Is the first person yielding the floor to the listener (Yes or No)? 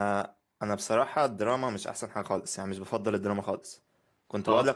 No